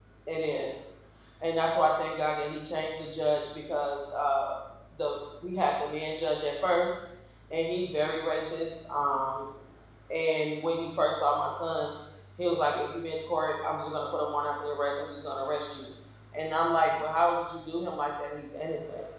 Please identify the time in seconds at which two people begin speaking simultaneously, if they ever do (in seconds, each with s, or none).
none